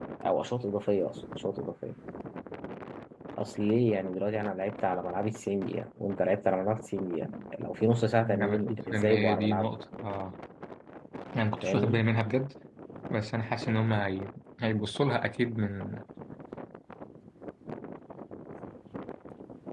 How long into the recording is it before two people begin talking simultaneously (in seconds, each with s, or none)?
8.3 s